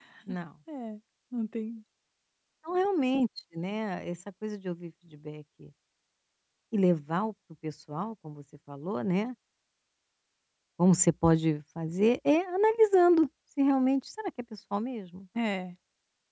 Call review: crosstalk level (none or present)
none